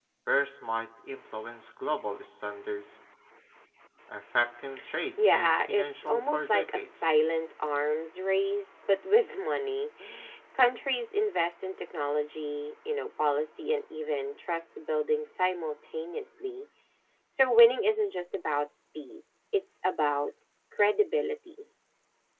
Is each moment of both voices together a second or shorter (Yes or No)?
No